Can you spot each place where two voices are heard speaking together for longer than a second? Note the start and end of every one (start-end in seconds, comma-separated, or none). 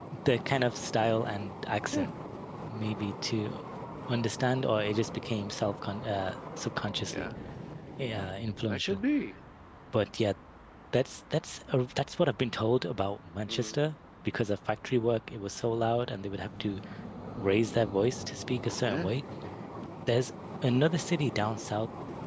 none